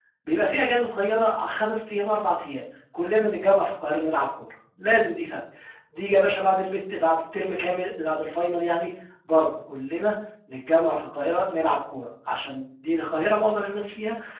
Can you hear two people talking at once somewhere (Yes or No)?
No